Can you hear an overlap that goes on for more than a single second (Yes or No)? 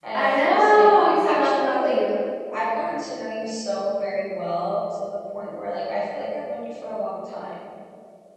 Yes